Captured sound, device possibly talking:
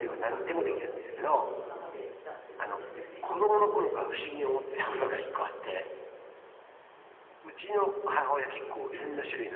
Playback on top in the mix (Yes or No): Yes